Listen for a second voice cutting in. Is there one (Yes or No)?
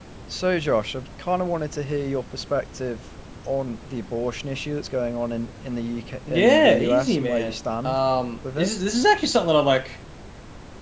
Yes